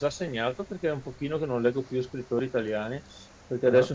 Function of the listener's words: listening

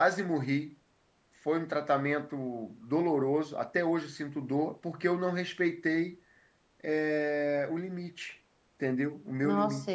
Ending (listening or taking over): taking over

